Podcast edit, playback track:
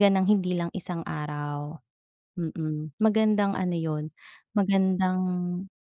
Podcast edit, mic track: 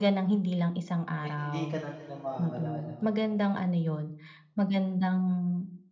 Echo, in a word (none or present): present